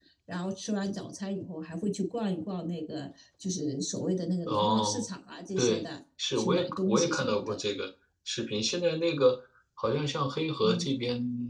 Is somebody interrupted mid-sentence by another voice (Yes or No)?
Yes